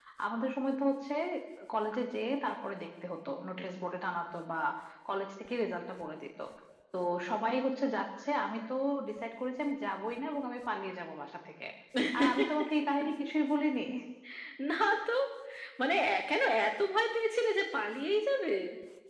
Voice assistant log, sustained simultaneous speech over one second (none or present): none